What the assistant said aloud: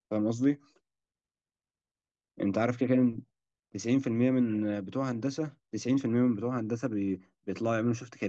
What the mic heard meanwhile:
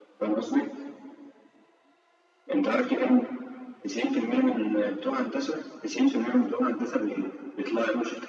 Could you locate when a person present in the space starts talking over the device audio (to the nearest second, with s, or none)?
none